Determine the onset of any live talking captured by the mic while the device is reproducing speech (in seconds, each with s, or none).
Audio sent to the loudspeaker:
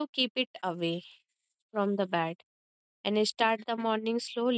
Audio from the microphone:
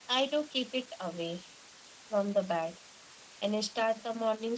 none